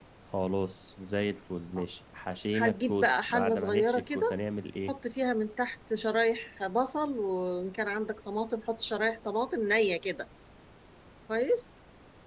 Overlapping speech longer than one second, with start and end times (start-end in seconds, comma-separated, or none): 2.5-4.4